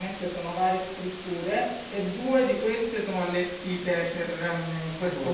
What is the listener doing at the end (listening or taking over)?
listening